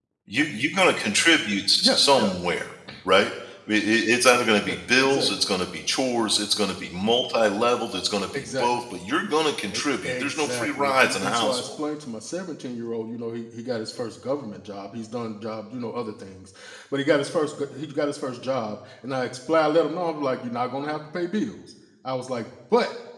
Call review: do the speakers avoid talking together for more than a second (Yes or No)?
No